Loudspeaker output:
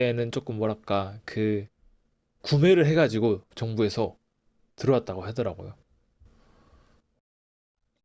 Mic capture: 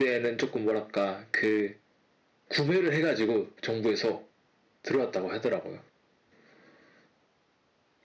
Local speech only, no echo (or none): none